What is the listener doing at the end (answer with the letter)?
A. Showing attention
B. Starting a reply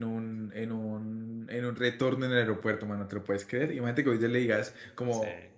A